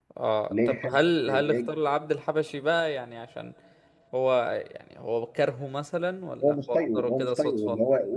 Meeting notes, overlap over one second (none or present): present